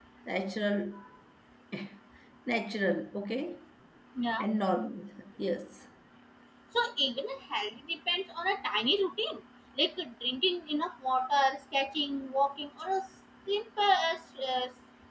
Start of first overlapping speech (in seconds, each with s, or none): none